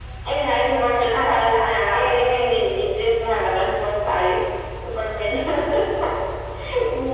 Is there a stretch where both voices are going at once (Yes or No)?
Yes